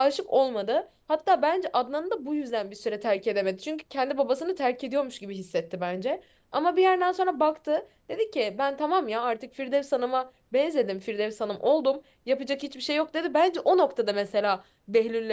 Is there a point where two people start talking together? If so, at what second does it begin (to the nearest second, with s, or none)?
none